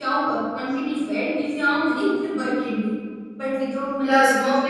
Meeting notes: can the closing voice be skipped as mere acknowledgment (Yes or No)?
No